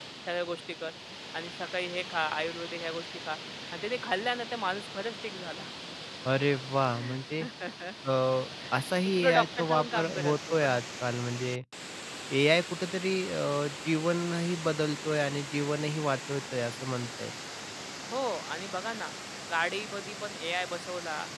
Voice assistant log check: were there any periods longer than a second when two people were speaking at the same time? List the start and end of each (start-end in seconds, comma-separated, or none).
9.2-10.8